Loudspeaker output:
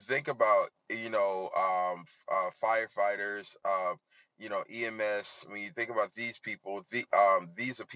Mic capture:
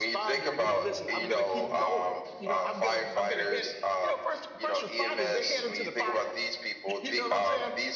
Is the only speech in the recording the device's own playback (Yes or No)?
No